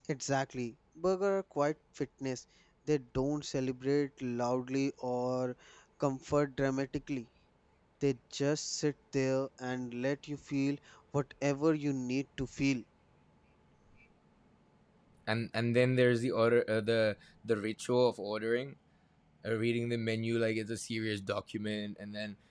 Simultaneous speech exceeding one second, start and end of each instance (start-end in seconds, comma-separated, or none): none